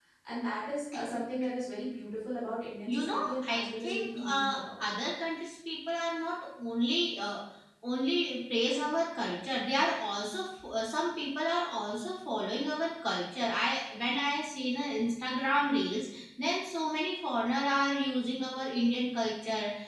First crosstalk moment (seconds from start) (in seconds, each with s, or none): 2.9 s